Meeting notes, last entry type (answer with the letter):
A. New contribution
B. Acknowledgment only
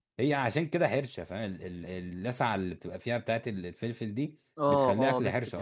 A